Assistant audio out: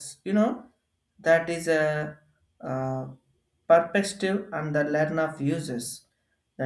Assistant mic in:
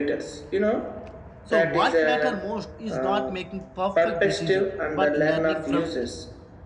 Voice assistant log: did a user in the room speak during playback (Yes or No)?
Yes